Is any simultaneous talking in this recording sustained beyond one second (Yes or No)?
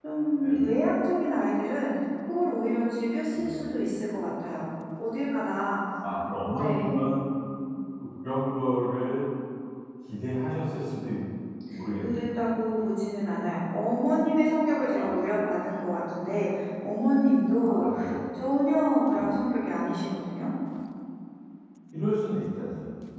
No